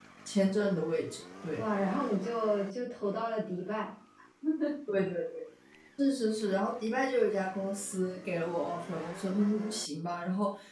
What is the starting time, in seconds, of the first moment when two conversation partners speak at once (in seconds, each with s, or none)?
none